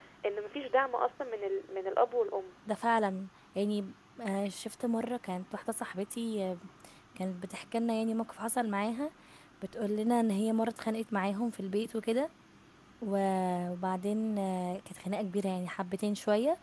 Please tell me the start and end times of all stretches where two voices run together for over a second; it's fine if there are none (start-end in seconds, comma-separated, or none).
none